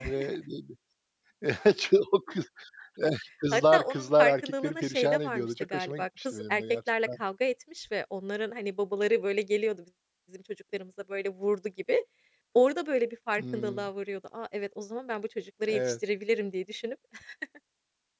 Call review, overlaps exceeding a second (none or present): present